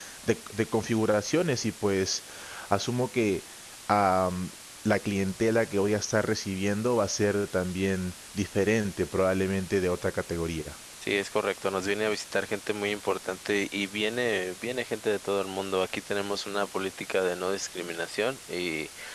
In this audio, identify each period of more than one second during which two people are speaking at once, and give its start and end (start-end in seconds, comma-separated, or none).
none